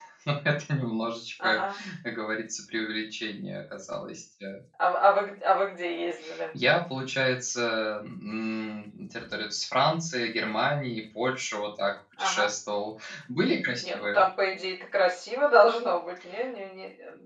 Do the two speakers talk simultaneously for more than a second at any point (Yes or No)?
No